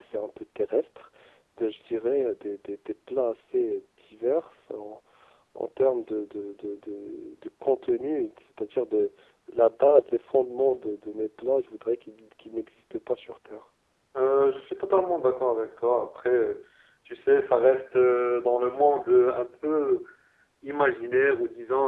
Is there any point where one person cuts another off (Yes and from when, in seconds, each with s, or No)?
No